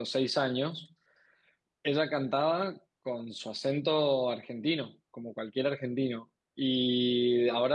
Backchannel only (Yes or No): Yes